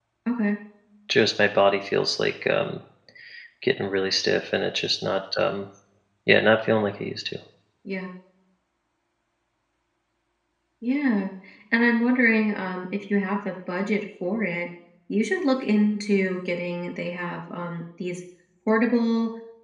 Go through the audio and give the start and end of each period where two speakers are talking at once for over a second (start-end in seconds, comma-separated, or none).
none